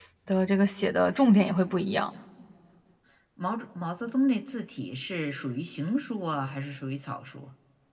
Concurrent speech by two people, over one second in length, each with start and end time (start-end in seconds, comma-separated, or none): none